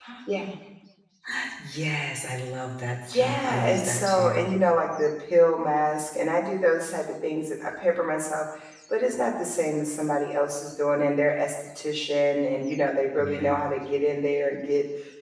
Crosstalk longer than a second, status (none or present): present